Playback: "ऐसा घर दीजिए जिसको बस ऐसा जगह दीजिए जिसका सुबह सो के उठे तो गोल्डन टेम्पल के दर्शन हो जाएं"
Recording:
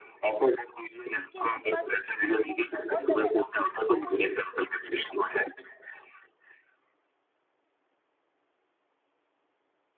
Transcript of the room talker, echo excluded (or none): उसके आसपास की स्ट्रीट को बहुत डेवलप कर दिया है